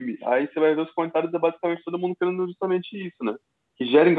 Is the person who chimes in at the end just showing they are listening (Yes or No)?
Yes